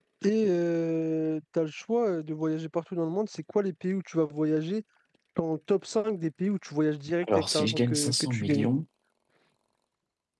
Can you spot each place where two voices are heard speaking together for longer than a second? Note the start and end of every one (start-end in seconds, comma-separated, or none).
7.3-8.7